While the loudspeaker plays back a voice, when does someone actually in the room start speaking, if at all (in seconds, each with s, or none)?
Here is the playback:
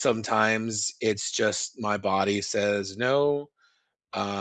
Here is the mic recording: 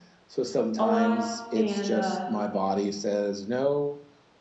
0.8 s